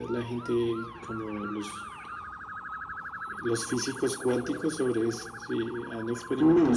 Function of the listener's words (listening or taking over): taking over